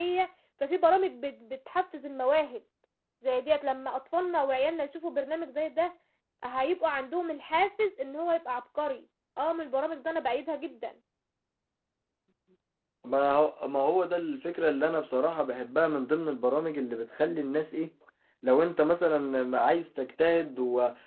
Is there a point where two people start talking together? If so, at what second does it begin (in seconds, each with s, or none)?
none